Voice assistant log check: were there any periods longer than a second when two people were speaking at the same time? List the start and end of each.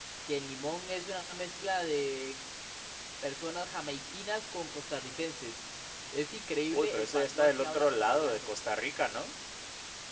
6.7-8.4

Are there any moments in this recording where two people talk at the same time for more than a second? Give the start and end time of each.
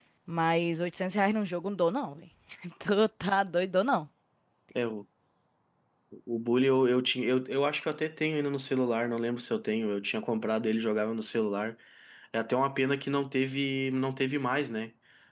none

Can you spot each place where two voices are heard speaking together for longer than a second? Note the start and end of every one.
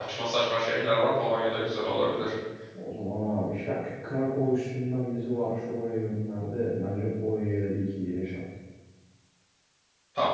none

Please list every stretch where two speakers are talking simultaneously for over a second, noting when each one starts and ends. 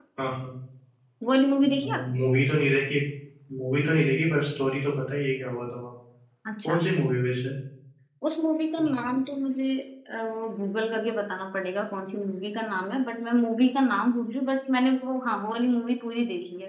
none

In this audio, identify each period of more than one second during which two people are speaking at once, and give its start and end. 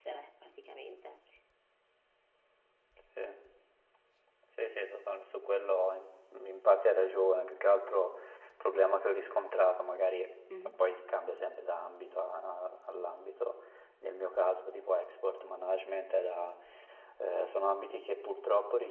none

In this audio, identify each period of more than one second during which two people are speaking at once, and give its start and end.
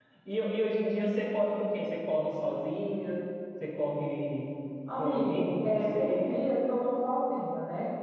5.0-6.4

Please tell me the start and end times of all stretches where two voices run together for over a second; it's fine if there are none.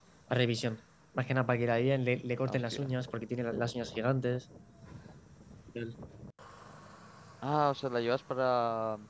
none

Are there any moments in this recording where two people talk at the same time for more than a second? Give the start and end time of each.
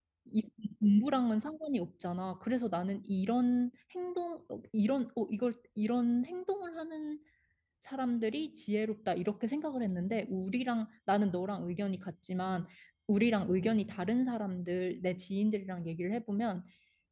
none

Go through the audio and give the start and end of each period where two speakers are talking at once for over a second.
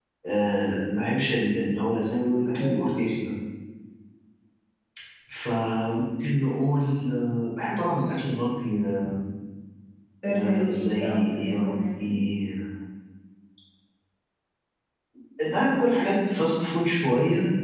10.3-12.2

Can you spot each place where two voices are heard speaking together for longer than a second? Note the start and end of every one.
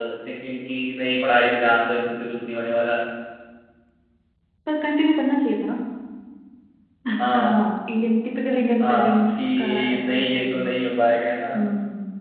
8.8-10.5

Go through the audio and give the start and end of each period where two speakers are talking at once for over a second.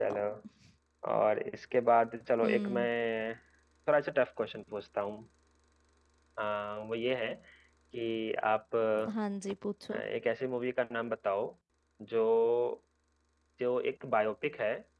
none

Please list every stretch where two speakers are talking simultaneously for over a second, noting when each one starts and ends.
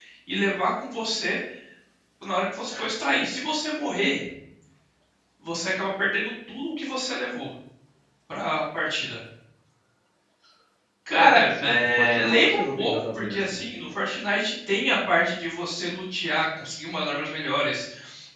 11.2-13.6

